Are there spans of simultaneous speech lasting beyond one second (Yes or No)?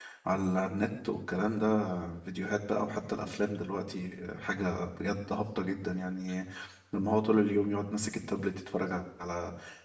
No